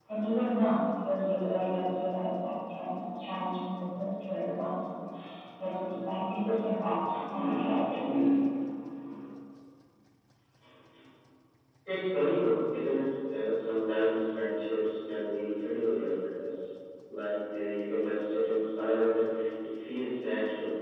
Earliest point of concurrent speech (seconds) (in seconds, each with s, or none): none